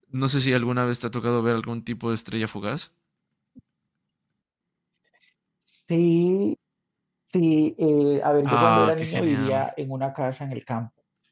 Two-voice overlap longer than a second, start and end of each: 8.4-9.7

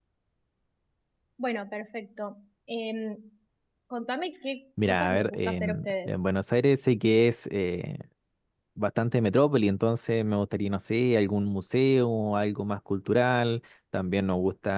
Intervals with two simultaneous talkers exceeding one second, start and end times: 4.8-6.1

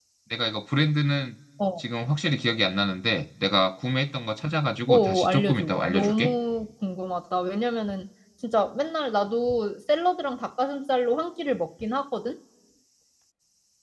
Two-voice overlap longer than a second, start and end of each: 4.9-6.3

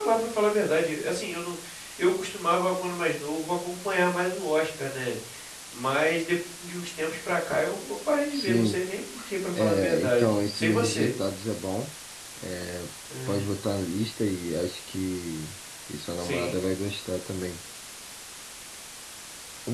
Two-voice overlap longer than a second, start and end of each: 9.6-11.1

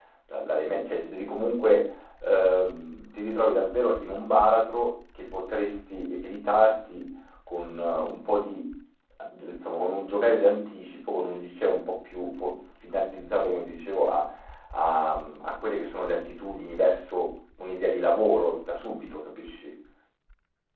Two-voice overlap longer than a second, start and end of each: none

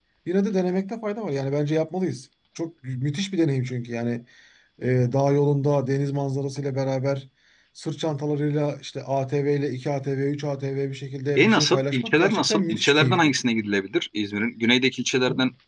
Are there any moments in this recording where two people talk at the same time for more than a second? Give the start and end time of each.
11.4-13.3

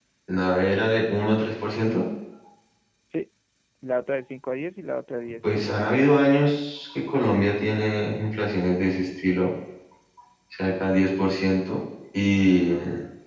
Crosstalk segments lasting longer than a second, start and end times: none

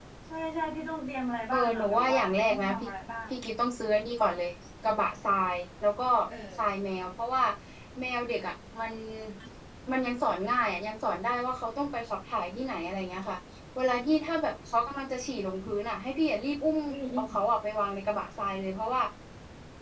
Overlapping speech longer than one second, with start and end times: 1.5-2.9

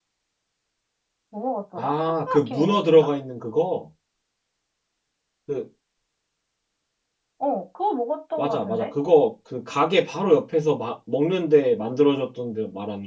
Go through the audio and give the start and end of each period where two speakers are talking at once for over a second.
1.8-3.1

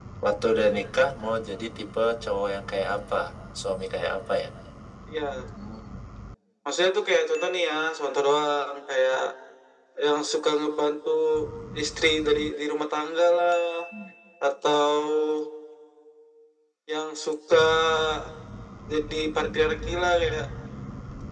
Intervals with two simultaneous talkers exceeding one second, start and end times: none

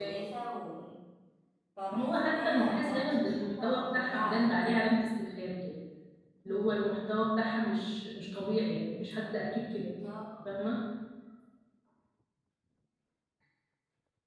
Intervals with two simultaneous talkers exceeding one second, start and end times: 1.9-5.0

